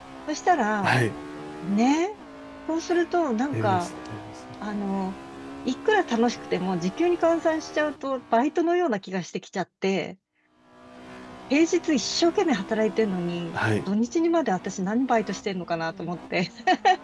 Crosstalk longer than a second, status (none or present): none